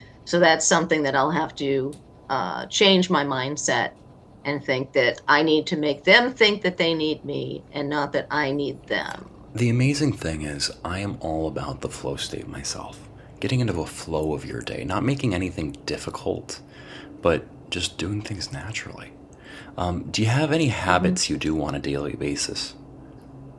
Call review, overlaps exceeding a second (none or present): none